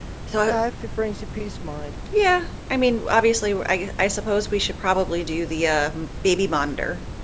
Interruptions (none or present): none